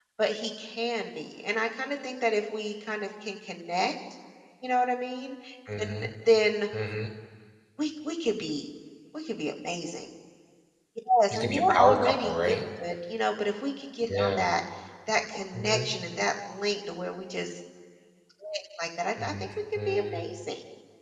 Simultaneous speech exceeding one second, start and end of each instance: 11.3-12.6

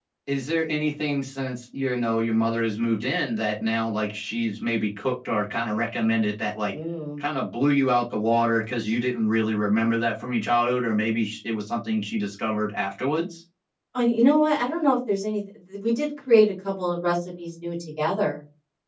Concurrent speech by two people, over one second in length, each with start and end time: none

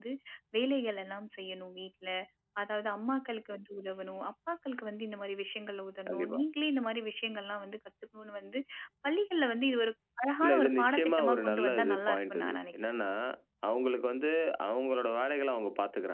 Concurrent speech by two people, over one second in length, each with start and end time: 10.4-12.7

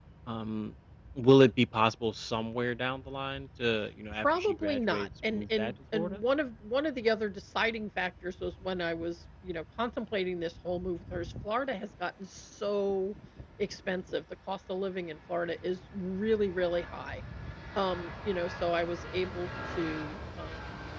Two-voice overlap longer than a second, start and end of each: 4.2-6.2

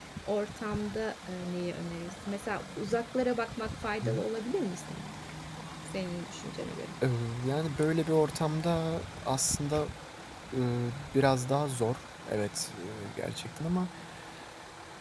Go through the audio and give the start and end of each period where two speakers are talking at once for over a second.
none

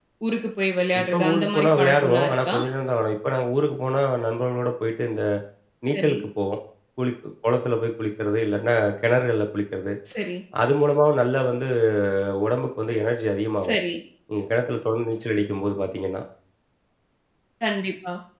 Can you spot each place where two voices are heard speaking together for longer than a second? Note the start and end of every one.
1.0-2.5

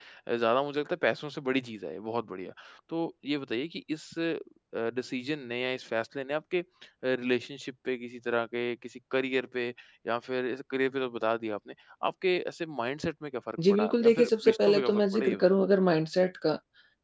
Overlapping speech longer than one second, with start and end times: 13.7-15.4

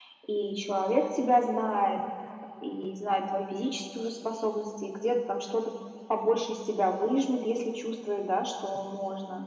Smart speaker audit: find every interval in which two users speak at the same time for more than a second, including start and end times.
none

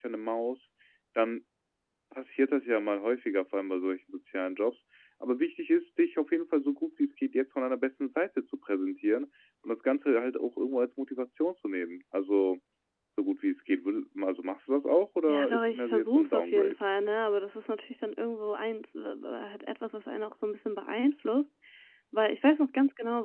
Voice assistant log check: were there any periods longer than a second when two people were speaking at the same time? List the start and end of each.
15.3-16.8

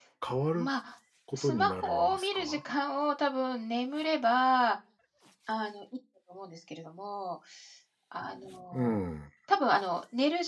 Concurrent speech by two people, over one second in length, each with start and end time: 1.4-2.6

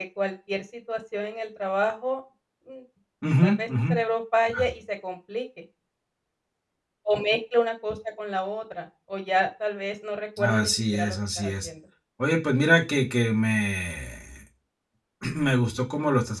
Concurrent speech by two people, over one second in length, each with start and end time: 10.4-11.7

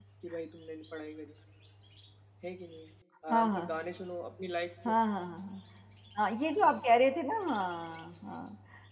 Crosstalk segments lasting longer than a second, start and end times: none

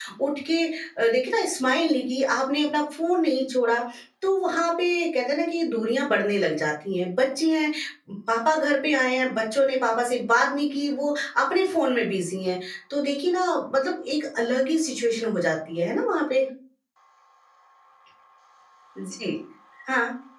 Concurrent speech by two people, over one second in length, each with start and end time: none

